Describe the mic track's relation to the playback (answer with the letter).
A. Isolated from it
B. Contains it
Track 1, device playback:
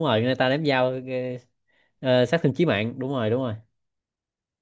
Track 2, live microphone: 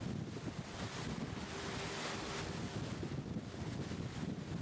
A